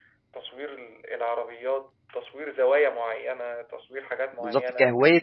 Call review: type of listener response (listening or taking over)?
taking over